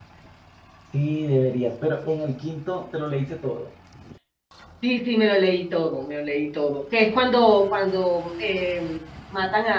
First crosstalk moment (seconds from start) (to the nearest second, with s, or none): none